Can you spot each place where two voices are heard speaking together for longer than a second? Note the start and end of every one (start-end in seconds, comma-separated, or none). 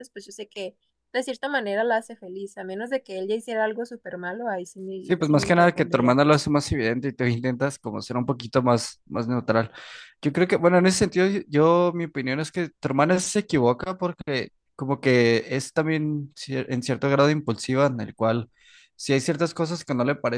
5.1-6.4